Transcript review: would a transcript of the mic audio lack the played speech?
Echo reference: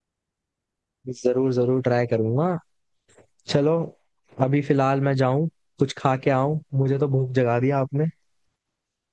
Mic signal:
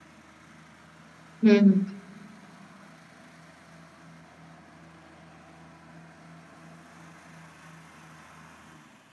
Yes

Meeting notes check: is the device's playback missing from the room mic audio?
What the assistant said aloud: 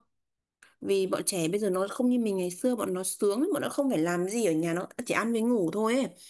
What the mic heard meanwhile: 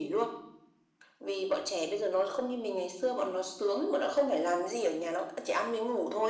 No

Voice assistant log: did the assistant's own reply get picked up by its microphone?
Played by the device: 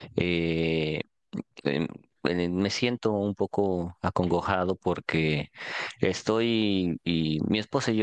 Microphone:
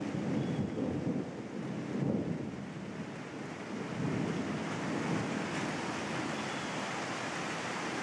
No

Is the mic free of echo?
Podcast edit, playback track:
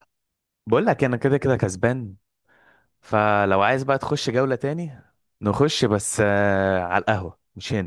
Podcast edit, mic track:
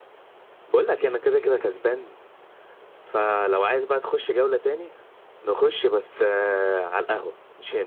No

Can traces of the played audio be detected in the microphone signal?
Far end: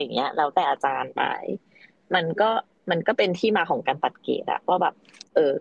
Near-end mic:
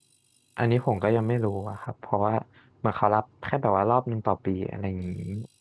No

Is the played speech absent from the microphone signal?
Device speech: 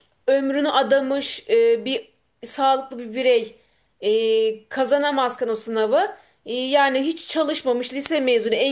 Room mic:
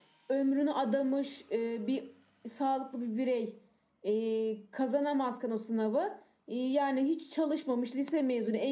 No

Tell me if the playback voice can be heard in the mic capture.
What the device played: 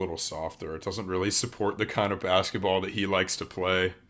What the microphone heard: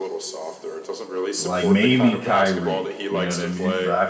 Yes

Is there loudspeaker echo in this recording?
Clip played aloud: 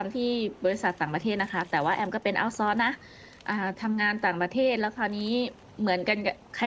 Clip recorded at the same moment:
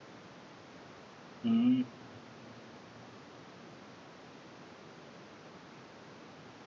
No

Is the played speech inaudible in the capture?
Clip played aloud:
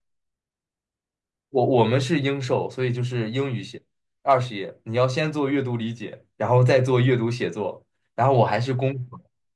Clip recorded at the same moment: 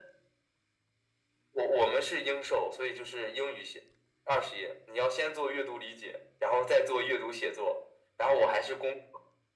No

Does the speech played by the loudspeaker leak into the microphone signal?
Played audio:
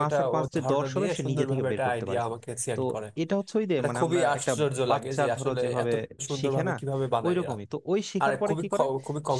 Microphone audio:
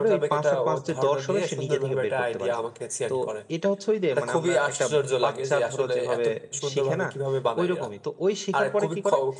Yes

